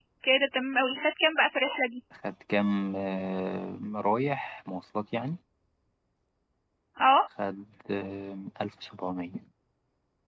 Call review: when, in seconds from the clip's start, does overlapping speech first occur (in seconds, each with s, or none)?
none